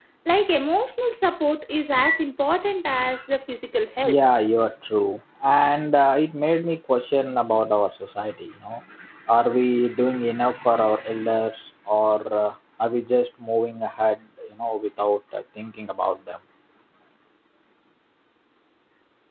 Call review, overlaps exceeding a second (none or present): none